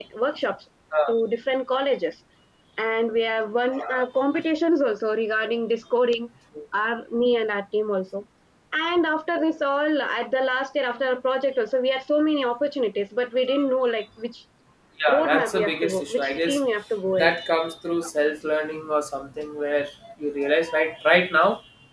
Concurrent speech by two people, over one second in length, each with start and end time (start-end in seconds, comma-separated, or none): 15.1-16.6